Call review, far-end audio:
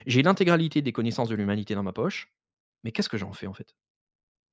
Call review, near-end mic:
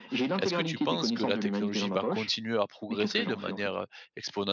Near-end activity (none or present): present